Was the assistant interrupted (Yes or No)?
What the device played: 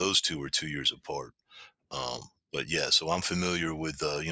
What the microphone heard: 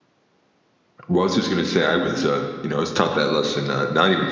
Yes